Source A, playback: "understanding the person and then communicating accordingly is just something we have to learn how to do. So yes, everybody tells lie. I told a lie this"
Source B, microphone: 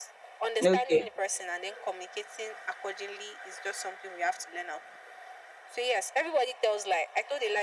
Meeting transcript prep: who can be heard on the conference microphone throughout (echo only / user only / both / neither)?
both